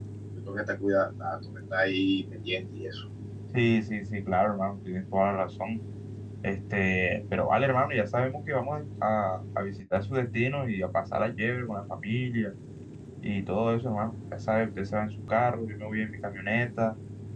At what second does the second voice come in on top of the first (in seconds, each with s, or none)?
none